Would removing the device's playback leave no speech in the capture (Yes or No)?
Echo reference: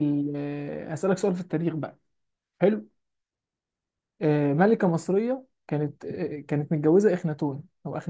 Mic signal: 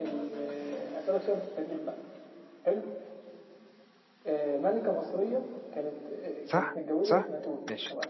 No